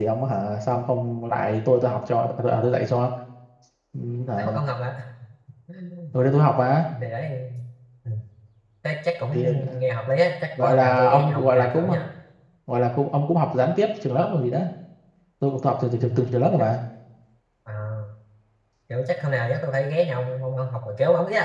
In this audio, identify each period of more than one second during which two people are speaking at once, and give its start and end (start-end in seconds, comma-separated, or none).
10.6-11.9